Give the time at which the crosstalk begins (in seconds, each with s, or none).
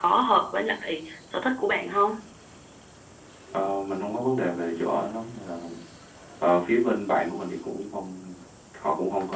none